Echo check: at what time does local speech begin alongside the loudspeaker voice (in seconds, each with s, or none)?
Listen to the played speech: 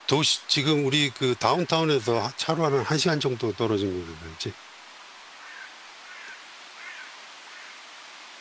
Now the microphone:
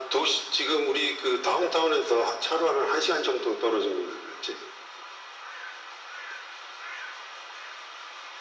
none